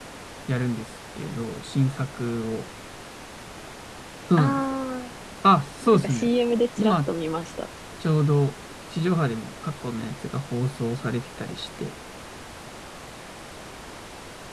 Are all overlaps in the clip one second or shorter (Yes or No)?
Yes